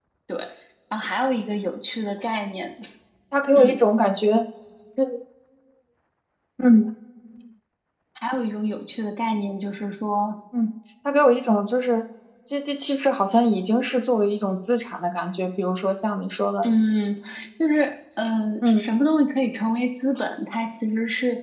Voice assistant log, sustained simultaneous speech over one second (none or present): none